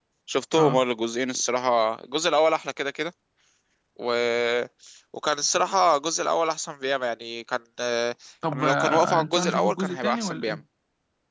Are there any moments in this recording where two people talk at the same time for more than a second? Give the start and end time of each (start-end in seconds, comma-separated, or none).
8.5-10.6